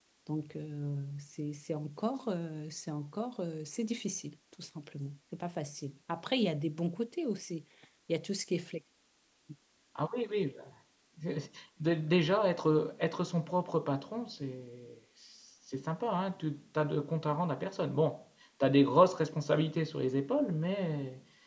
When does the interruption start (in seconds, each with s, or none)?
none